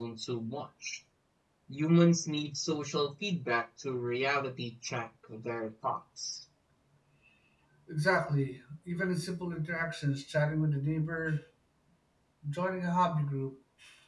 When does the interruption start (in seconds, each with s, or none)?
none